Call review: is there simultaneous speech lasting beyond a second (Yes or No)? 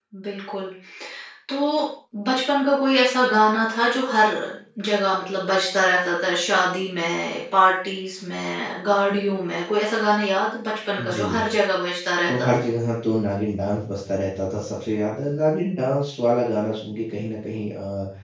No